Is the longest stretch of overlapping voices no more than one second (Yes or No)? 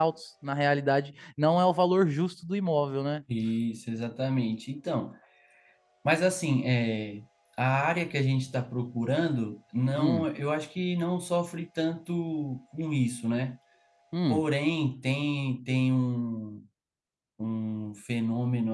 Yes